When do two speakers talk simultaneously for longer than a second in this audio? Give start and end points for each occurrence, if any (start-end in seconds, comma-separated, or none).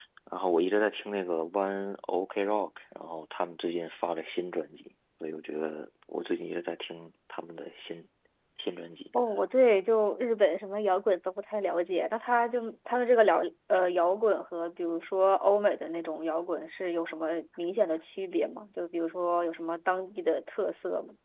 none